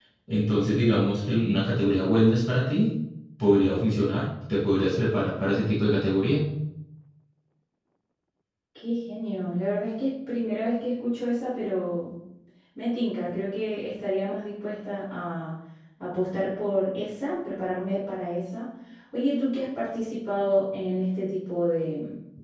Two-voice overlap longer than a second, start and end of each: none

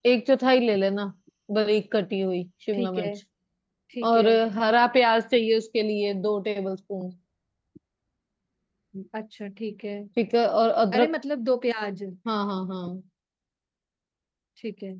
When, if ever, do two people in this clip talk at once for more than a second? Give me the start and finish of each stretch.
none

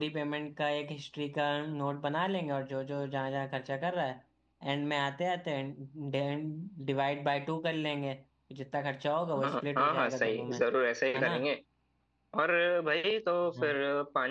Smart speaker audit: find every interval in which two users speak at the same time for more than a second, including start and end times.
9.4-10.6

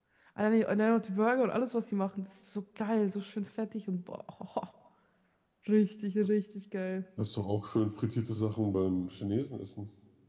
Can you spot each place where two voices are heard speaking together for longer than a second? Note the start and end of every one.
none

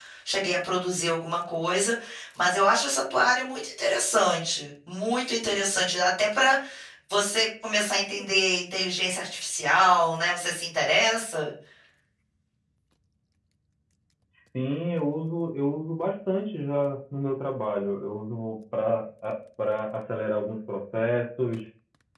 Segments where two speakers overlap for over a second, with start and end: none

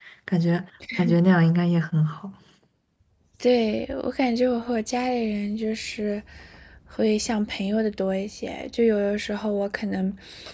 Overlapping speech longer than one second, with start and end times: none

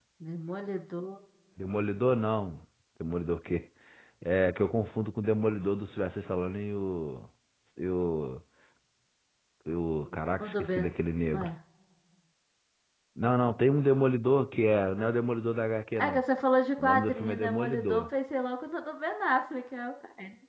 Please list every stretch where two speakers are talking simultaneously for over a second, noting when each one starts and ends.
16.8-18.1

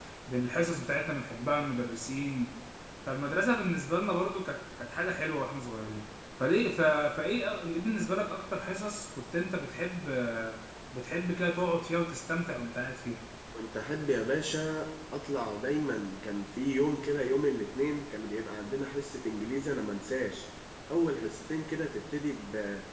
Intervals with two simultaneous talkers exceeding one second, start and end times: none

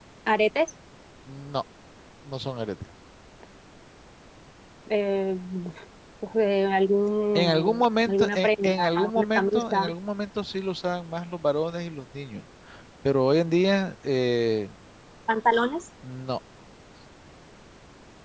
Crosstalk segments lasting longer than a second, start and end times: 7.3-9.9

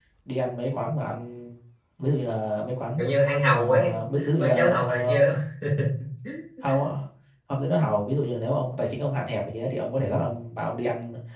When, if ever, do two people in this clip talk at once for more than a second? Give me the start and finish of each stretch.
3.5-5.2

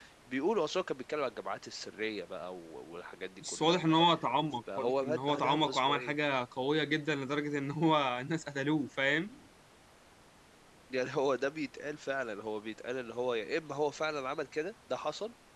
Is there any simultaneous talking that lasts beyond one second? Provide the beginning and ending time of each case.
4.8-6.1

